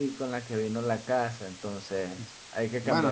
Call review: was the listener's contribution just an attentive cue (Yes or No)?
No